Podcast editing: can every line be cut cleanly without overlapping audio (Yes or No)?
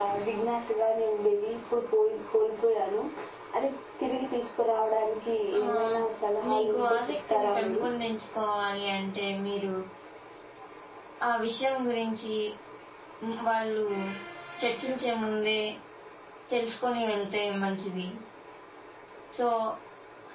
No